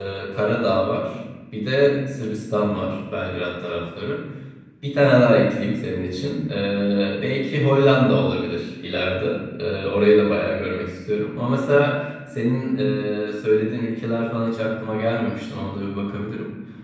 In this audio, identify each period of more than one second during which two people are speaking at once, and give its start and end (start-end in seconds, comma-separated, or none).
none